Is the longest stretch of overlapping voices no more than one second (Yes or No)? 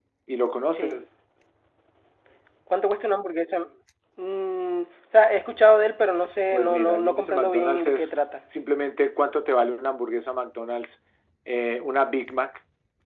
No